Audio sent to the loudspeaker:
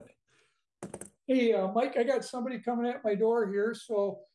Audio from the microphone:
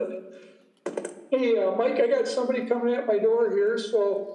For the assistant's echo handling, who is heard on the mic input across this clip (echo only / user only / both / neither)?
echo only